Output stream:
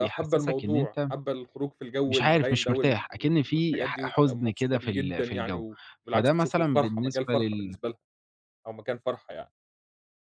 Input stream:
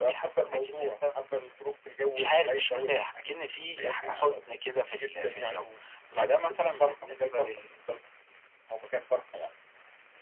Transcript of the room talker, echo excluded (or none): none